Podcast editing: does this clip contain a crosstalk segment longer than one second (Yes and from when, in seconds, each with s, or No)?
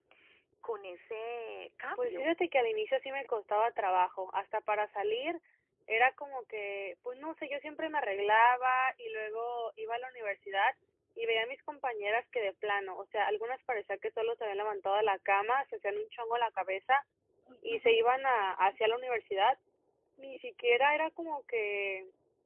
No